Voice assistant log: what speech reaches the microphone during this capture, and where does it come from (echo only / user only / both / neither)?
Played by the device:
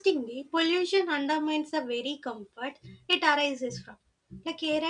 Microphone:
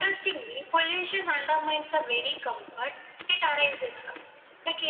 echo only